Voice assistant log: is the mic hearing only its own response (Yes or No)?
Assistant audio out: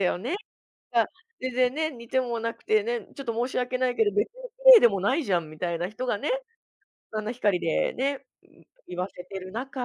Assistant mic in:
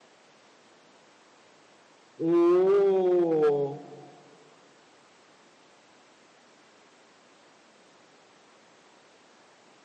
No